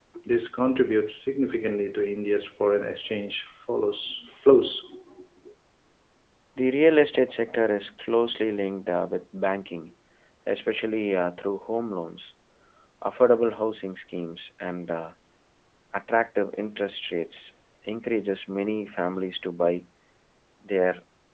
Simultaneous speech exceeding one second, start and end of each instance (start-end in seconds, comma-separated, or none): none